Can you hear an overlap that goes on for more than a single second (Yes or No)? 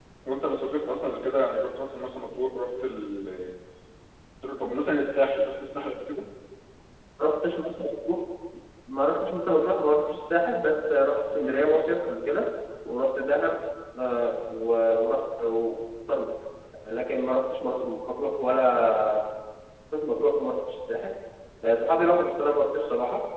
No